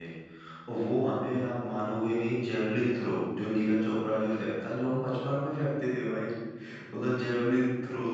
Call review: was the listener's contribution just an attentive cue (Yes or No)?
Yes